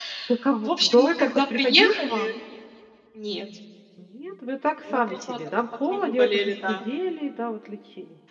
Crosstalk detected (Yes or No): Yes